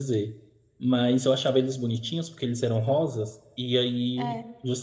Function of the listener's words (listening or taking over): listening